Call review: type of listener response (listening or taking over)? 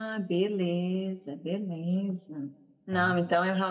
listening